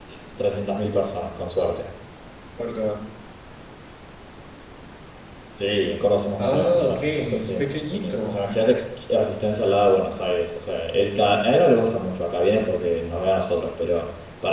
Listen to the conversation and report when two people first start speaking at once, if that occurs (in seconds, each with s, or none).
6.4 s